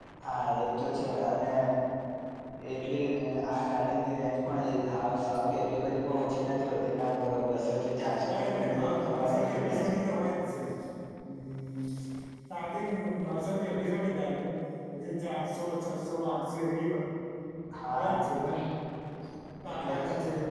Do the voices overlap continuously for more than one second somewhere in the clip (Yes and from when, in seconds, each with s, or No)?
Yes, from 8.3 s